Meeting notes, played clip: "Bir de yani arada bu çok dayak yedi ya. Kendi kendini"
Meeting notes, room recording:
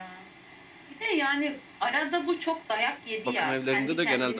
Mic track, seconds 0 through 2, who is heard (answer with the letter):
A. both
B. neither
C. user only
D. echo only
D